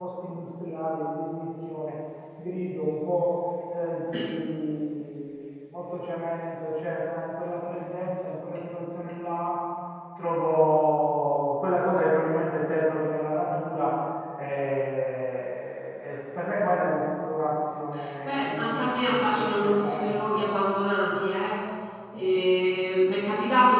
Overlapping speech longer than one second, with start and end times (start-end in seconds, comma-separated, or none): 18.2-20.4